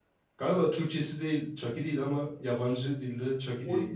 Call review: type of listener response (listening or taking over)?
taking over